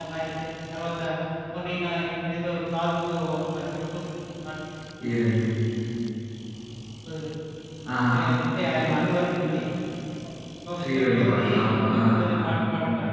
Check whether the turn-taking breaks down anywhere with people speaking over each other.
Yes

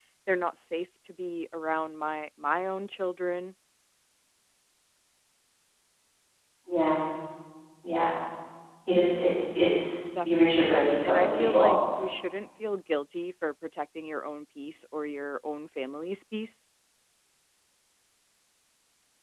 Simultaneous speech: Yes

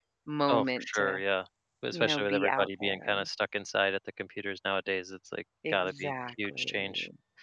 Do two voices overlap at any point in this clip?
Yes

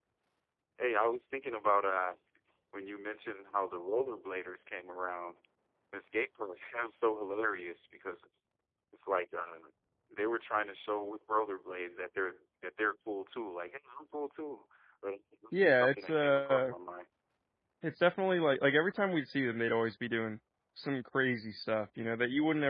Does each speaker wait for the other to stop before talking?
No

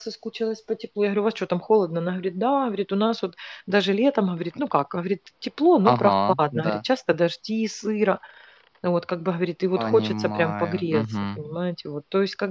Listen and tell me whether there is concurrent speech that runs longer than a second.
Yes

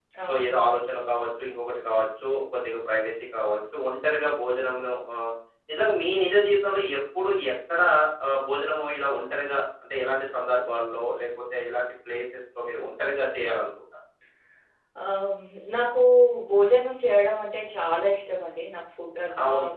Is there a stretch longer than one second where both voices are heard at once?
No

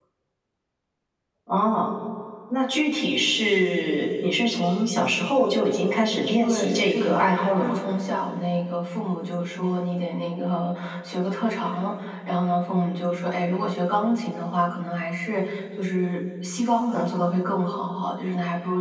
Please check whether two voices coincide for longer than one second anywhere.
Yes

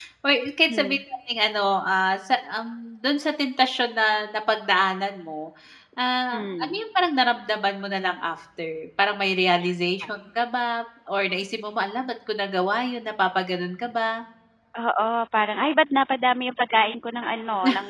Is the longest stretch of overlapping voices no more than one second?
Yes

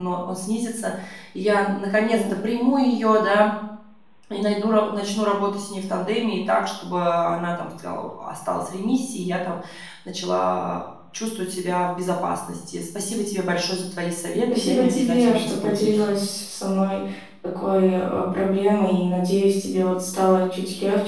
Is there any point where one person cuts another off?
Yes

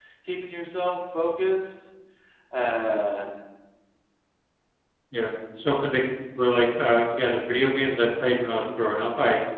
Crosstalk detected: No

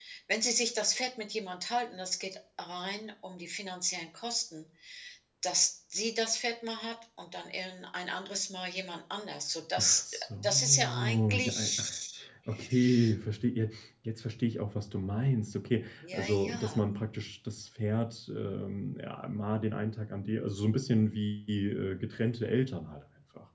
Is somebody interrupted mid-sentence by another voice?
Yes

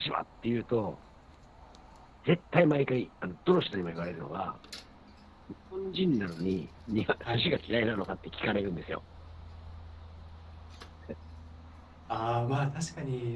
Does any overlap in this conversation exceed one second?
No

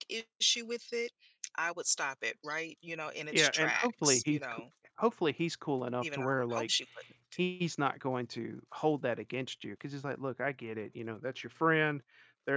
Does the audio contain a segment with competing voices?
Yes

